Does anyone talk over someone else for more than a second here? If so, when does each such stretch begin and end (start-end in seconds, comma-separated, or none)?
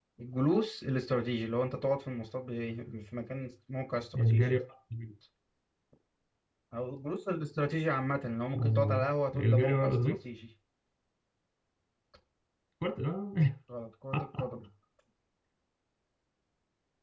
8.6-10.2